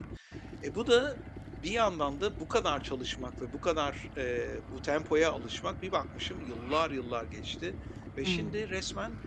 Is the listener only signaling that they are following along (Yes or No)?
Yes